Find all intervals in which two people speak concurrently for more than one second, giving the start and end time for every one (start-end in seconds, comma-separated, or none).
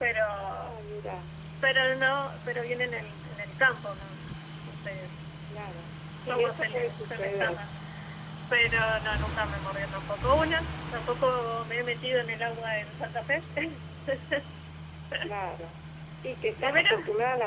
6.3-7.6